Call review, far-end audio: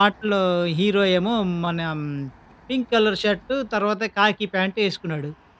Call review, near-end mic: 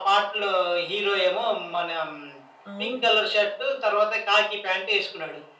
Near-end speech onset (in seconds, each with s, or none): 2.7 s